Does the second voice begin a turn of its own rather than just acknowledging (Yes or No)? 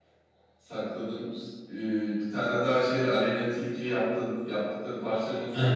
Yes